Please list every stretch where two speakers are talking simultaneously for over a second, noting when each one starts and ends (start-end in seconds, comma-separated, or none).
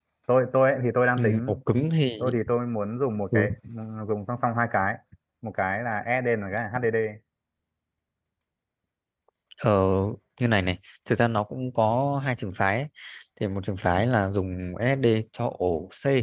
none